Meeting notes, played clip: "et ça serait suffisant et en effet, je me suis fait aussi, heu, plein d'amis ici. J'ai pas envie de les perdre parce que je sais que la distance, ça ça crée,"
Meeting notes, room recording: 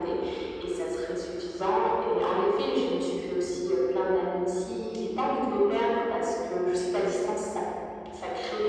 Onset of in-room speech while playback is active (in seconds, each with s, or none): none